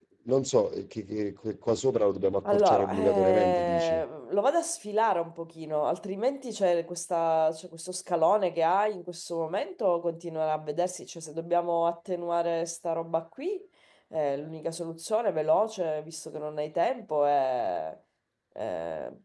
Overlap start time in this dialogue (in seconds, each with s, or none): 2.4 s